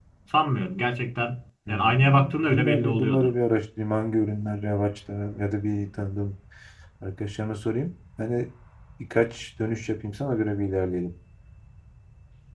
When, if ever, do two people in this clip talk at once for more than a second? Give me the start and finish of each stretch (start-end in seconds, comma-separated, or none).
1.7-3.3